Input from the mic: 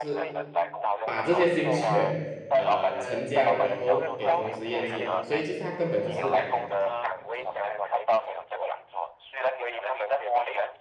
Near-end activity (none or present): present